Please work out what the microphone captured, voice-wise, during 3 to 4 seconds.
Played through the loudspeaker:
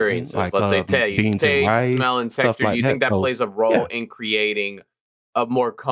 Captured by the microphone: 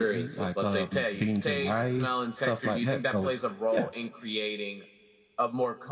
echo only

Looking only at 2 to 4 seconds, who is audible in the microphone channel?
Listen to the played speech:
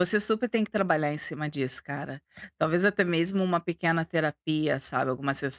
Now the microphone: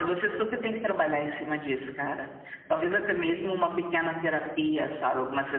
echo only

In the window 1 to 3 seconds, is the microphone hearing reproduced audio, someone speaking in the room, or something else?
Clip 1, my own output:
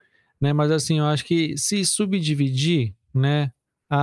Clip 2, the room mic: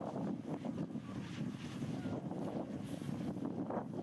neither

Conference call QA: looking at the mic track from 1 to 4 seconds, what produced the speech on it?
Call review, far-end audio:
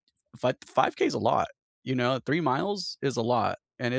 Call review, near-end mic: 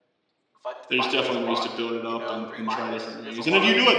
both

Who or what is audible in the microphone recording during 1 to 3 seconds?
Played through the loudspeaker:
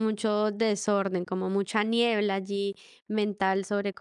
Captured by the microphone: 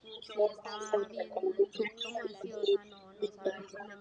both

